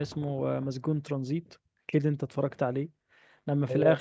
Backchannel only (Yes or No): Yes